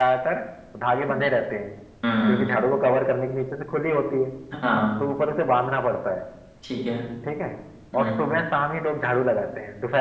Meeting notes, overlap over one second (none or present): none